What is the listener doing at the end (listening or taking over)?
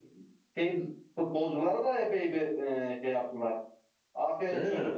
listening